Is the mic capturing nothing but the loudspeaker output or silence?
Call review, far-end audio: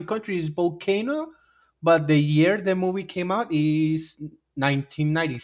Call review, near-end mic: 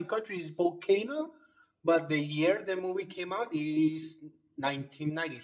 Yes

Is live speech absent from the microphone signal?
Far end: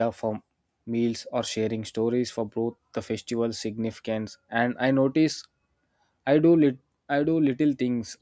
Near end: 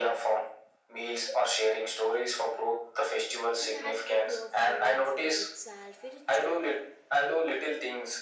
No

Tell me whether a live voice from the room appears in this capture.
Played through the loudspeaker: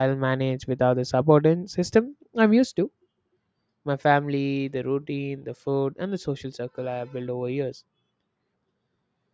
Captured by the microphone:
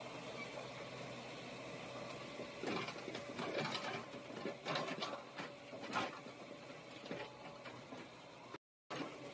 No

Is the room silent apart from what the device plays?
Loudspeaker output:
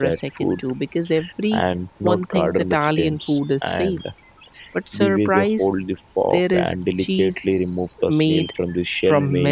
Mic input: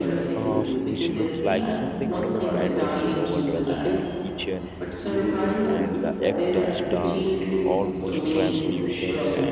No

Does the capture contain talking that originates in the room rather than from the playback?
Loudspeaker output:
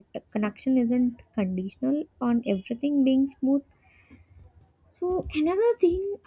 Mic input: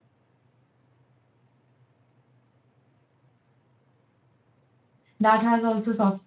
Yes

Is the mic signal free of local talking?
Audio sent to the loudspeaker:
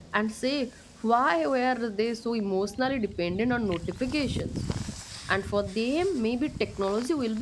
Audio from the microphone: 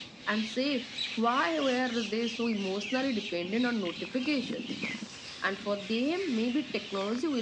Yes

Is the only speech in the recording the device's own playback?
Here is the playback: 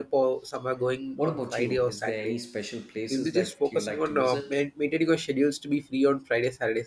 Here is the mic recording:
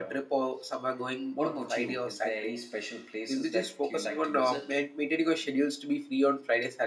Yes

